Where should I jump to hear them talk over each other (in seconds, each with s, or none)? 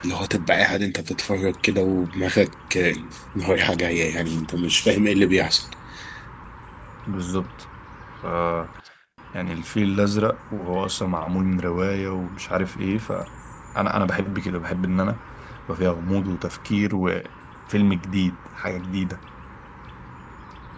none